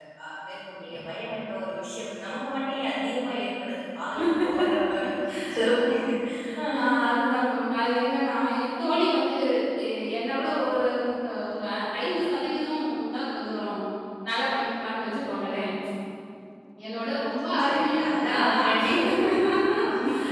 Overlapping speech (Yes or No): Yes